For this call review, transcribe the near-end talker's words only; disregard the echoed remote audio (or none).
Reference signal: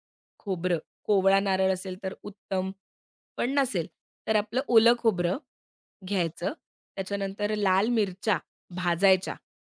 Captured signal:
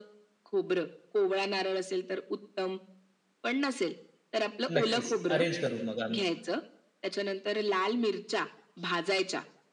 नक्कीच. अरेंज करू मग आम्ही.